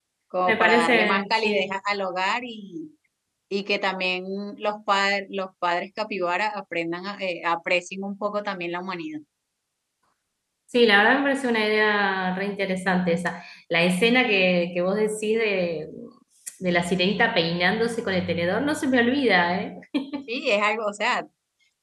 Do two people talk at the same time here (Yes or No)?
Yes